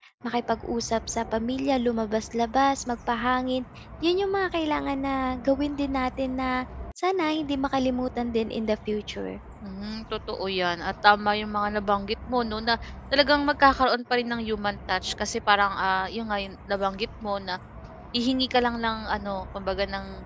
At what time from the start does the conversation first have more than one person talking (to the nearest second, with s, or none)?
none